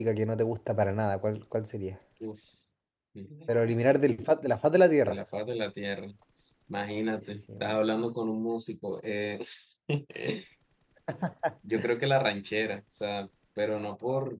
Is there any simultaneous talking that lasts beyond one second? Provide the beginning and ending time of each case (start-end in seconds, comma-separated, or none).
none